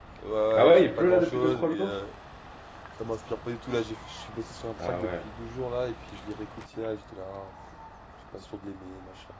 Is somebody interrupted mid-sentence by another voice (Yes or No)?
Yes